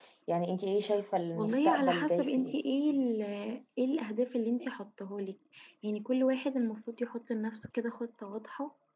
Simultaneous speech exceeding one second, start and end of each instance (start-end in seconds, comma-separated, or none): 1.3-2.5